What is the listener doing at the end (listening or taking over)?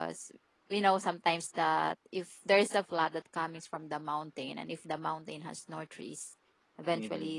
listening